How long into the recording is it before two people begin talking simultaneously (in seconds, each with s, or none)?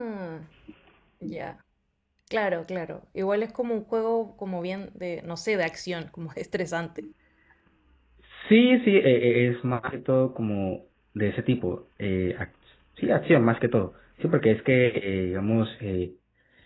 none